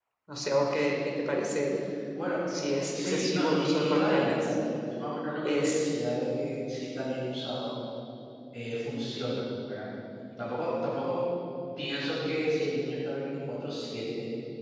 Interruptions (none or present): present